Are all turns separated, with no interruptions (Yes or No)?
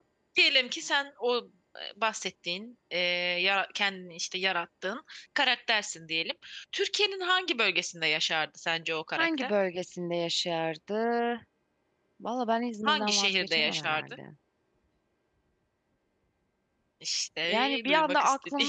No